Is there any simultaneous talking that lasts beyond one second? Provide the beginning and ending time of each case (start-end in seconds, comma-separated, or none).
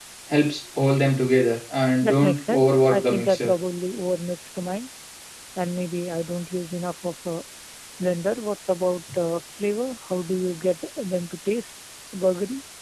2.0-3.5